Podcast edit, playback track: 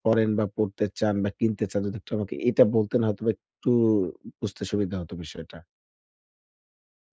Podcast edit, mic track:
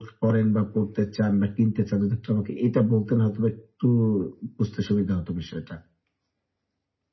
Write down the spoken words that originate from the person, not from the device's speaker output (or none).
none